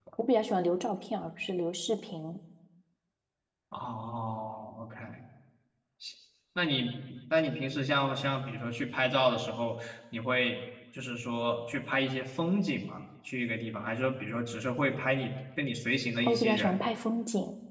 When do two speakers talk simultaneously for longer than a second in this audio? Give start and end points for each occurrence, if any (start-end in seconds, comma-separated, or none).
none